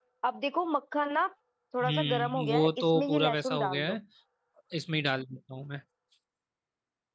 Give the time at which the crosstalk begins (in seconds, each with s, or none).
1.8 s